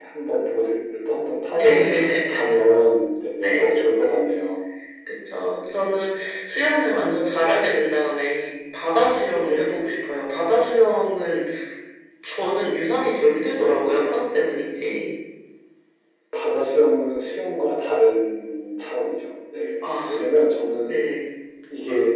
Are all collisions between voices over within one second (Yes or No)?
Yes